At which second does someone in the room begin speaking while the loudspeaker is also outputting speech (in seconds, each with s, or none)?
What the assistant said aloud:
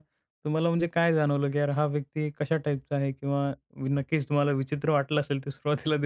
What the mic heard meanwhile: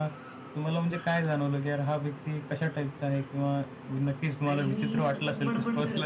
4.5 s